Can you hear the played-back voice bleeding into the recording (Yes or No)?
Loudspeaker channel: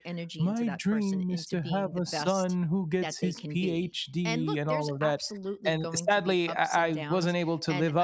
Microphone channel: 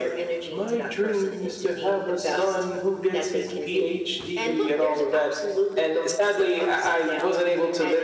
Yes